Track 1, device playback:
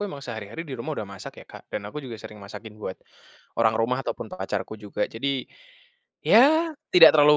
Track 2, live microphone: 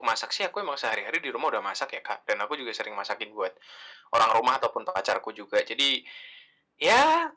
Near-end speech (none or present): none